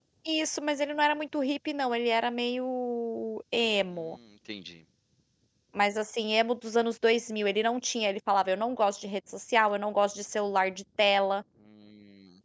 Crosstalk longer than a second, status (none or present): none